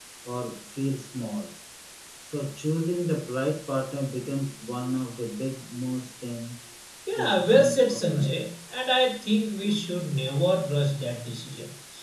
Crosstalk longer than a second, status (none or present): present